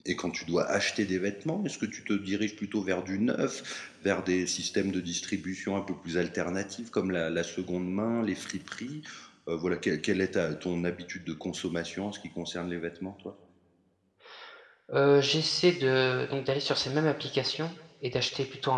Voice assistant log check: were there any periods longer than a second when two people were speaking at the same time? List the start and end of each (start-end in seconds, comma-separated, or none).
none